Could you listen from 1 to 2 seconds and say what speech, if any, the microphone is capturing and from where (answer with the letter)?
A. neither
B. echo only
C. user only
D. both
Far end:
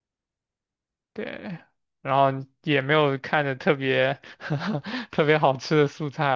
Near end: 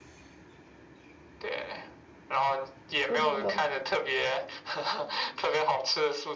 B